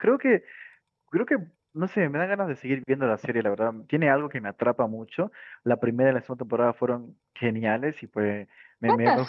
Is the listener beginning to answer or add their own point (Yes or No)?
No